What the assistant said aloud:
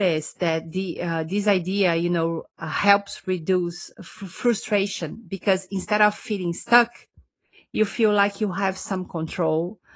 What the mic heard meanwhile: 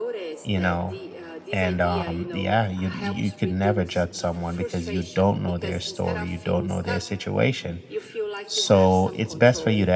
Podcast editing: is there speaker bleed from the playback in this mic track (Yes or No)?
Yes